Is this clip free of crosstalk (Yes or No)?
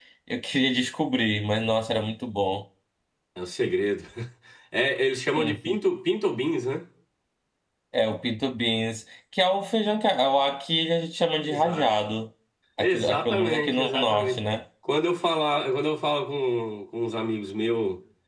No